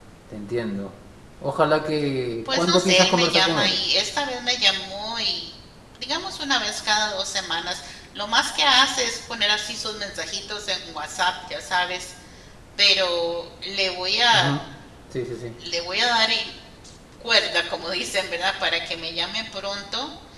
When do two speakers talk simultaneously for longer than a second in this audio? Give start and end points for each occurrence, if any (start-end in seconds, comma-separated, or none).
2.4-3.8